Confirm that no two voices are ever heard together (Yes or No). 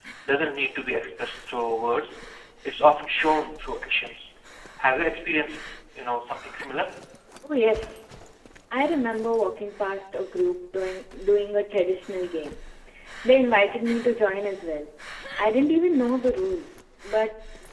Yes